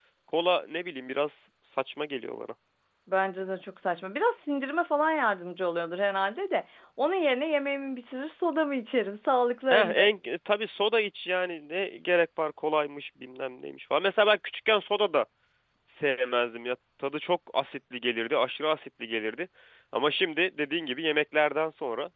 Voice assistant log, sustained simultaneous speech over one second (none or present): none